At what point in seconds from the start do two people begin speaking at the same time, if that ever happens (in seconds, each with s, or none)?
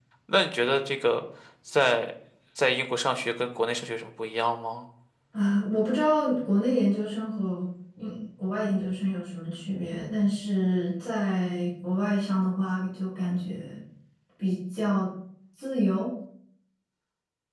none